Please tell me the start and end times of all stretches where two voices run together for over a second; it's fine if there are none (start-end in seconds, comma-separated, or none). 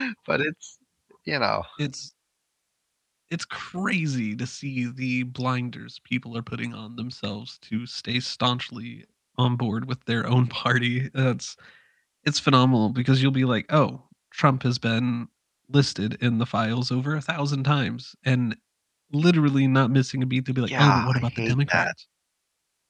20.7-21.9